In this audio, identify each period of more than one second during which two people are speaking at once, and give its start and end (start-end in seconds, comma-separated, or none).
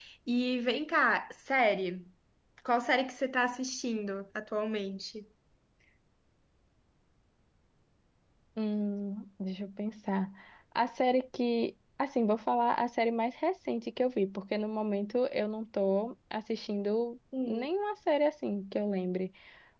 none